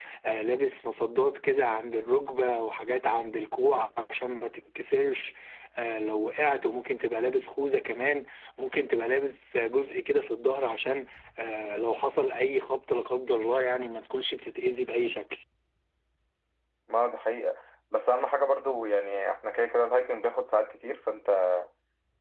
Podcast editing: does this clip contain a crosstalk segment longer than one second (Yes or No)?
No